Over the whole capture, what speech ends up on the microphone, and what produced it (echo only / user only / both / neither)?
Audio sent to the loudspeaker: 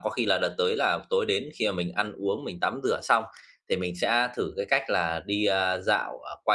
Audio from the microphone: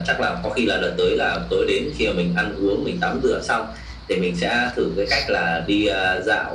echo only